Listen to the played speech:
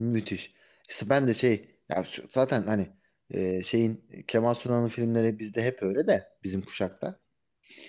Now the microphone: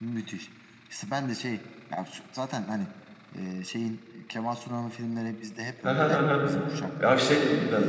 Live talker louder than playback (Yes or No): Yes